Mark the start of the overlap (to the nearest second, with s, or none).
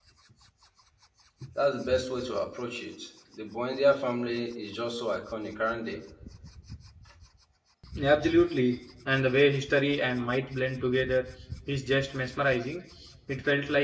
none